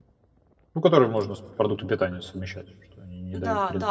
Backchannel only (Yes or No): No